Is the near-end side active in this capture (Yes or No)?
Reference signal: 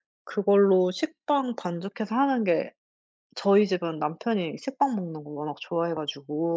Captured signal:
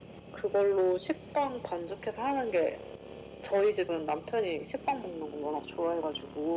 No